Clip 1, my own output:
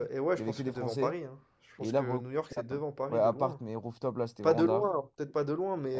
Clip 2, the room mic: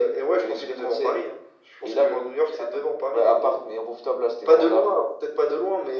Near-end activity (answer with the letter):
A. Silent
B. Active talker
A